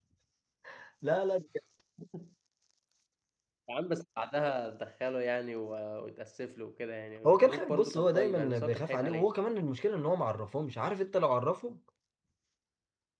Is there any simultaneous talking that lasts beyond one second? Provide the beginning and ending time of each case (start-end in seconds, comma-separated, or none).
7.2-9.3